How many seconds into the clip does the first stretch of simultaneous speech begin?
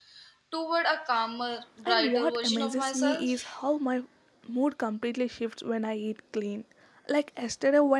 1.9 s

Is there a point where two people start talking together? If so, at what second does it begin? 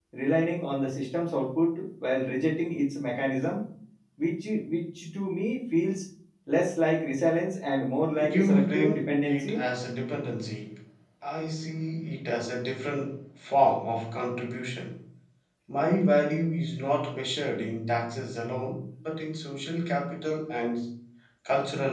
8.1 s

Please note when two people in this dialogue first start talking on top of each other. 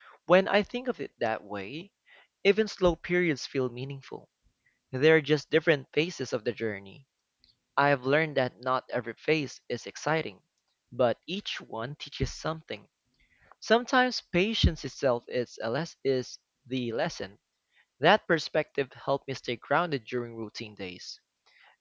none

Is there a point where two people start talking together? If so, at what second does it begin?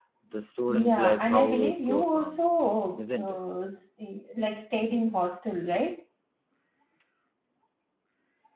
0.7 s

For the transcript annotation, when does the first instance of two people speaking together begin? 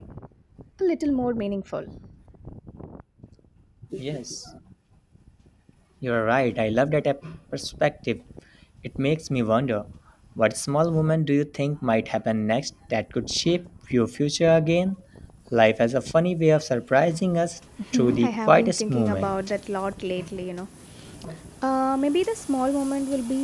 17.8 s

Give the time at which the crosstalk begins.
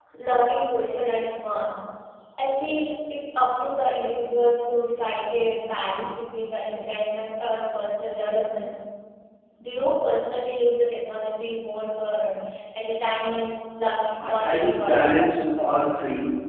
14.2 s

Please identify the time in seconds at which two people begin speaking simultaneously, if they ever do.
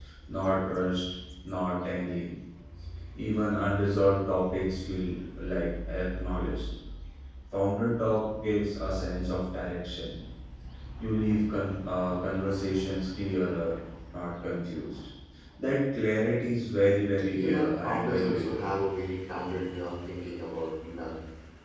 17.3 s

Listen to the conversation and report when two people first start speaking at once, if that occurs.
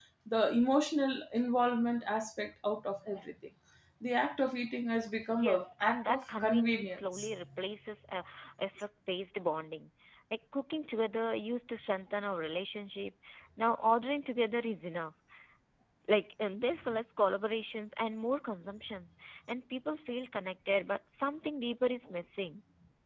5.3 s

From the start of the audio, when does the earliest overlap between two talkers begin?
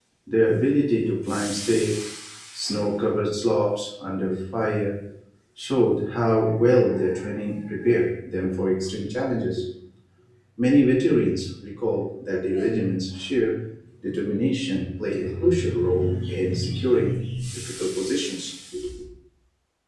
none

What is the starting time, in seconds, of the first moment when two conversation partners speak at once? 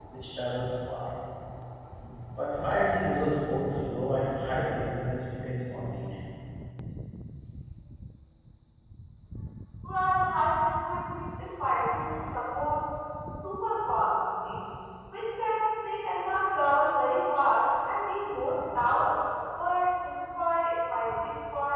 none

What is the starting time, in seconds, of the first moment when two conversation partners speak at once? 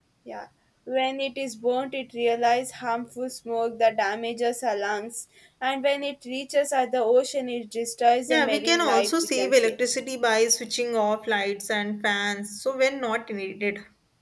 8.3 s

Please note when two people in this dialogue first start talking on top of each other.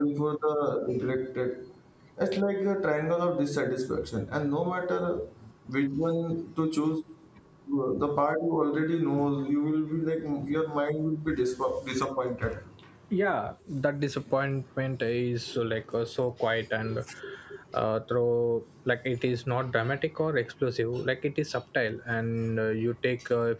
none

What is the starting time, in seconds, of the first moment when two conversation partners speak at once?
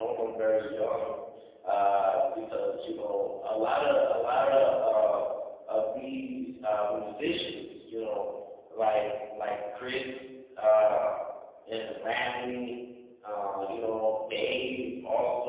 none

